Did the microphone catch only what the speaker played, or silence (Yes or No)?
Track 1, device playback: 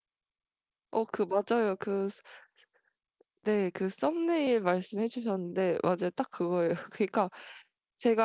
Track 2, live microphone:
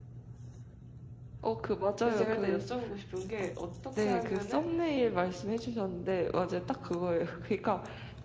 No